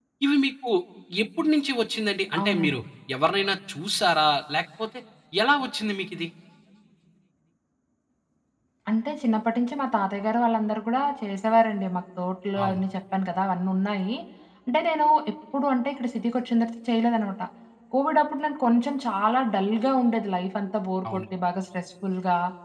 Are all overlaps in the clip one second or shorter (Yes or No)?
Yes